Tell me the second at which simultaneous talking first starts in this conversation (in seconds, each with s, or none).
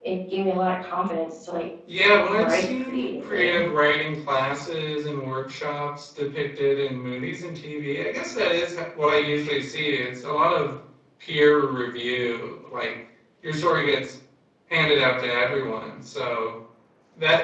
2.2 s